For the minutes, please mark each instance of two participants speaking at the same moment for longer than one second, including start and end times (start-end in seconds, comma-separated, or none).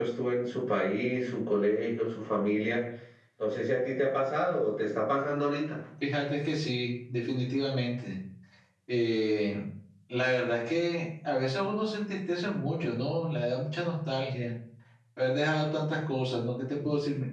none